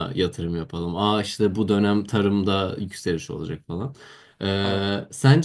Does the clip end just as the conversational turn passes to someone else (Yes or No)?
No